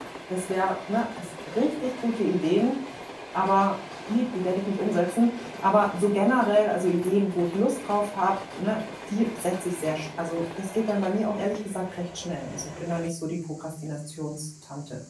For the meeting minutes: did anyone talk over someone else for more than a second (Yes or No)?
No